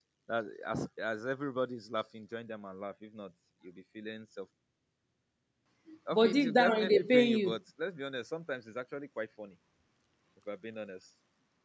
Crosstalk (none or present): present